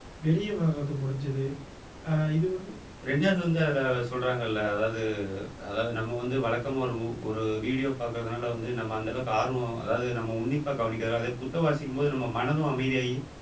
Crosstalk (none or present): none